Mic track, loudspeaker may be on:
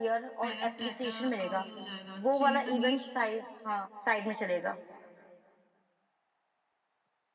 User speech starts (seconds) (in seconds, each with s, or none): 0.4 s